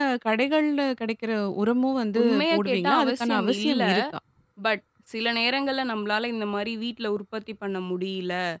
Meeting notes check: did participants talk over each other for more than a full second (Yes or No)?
Yes